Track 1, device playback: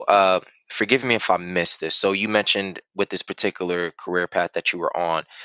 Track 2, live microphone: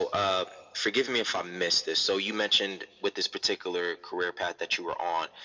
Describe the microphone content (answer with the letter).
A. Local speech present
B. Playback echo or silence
B